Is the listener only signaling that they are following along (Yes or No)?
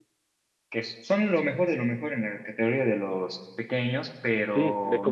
No